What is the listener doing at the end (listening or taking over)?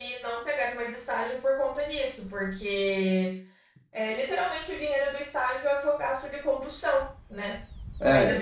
listening